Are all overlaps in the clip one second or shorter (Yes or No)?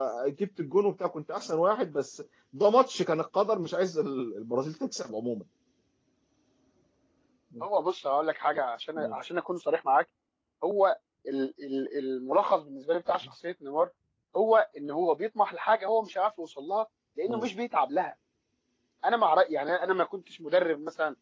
Yes